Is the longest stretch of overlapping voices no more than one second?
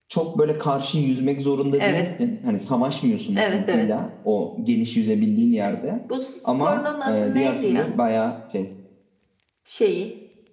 No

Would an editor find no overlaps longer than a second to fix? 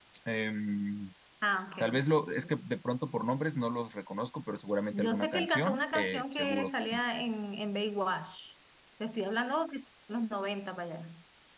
No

